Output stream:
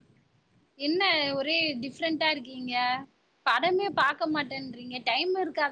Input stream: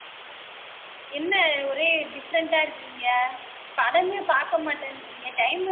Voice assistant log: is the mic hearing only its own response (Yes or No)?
Yes